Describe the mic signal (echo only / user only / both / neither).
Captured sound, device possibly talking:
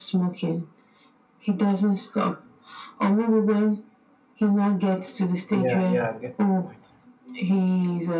both